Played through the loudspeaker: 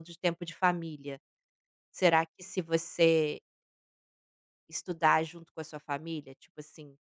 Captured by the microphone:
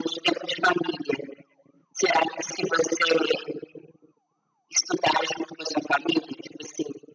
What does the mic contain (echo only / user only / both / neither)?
echo only